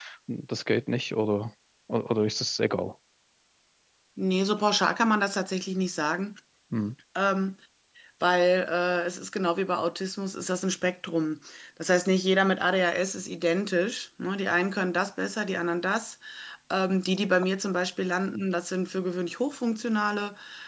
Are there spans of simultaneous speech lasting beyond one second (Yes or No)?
No